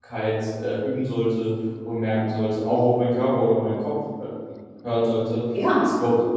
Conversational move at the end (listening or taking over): listening